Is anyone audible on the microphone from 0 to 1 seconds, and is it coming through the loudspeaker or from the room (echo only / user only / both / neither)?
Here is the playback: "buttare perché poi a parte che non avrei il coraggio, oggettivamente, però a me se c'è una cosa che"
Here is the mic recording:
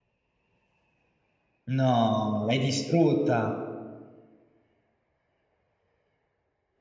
neither